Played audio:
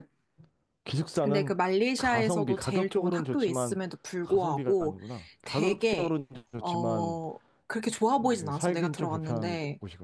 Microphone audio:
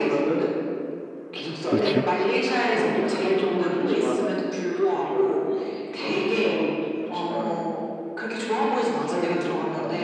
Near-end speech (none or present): present